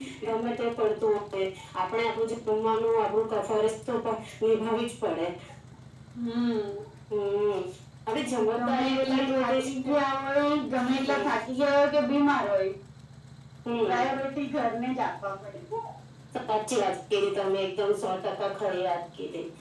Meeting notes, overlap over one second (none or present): present